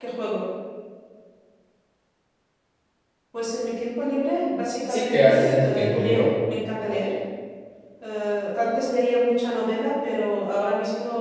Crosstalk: present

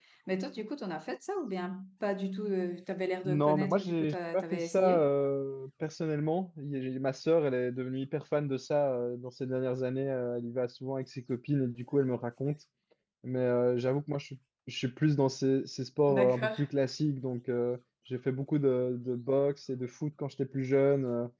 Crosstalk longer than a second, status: present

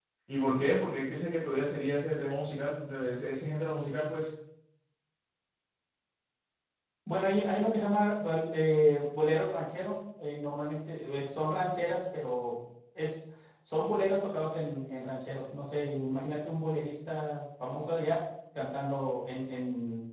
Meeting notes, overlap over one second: none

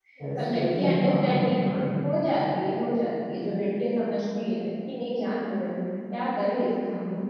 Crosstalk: present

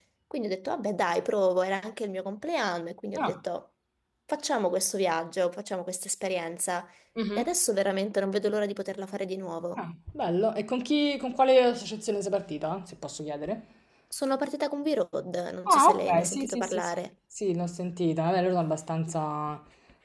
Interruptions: present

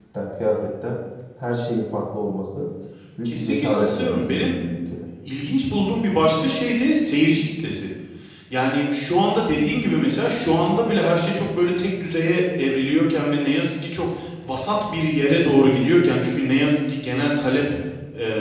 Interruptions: present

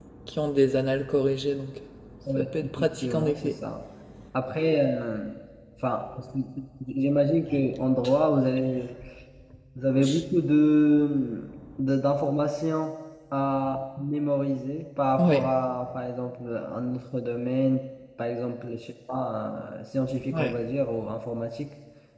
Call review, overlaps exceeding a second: present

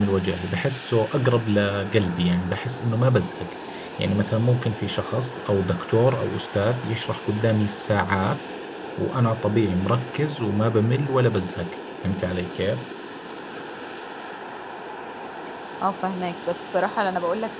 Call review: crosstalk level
none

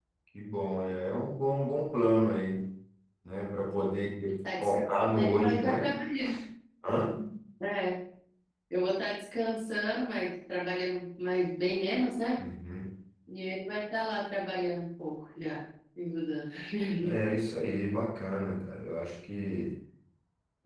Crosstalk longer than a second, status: present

